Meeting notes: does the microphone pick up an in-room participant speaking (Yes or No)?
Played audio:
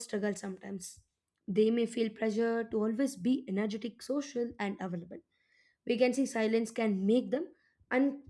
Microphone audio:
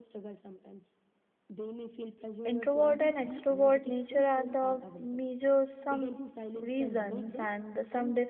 Yes